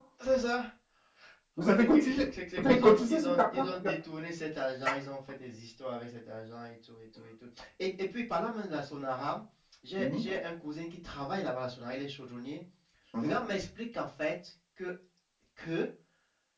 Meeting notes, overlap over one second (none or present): present